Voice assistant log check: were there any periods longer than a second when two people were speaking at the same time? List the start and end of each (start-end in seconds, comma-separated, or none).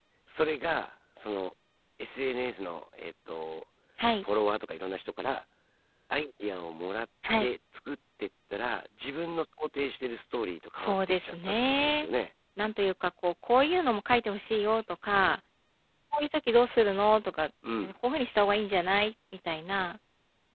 10.8-12.1